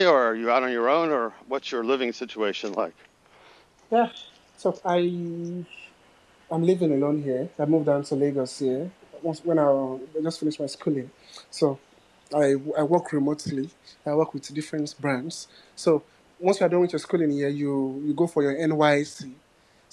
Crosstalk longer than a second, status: none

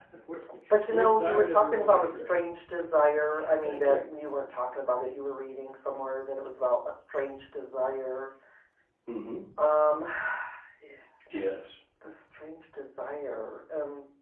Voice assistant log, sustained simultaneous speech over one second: present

